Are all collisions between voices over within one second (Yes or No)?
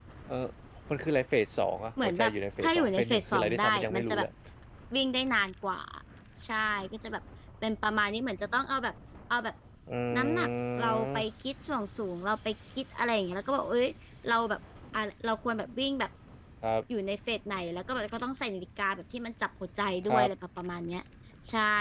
No